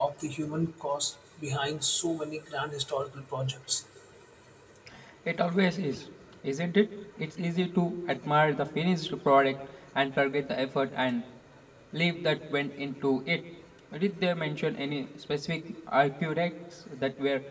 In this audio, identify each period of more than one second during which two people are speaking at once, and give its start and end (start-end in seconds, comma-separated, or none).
none